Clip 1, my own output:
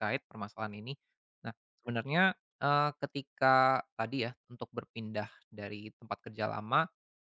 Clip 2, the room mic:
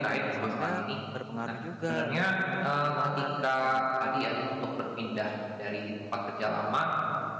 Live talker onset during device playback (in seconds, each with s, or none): 0.3 s